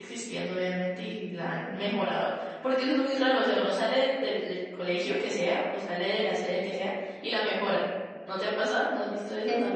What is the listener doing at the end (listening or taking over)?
taking over